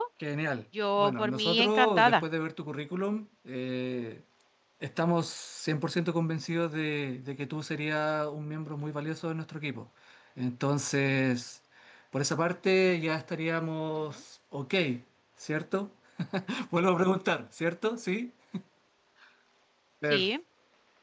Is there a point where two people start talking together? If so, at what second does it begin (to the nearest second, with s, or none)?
1 s